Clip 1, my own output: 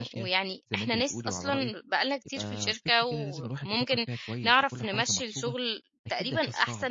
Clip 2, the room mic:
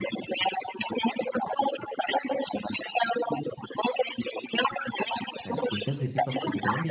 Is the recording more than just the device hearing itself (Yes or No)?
Yes